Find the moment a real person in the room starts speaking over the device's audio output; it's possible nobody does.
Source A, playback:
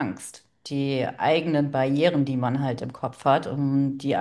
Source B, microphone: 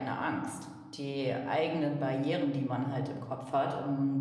none

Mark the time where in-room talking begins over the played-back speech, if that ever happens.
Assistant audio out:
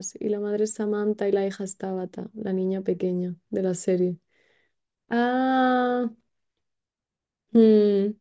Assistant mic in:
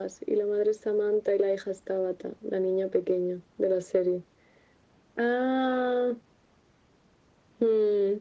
none

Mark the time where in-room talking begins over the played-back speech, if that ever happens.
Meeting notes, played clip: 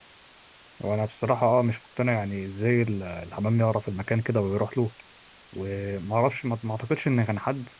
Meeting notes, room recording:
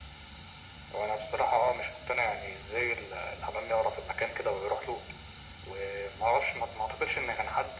none

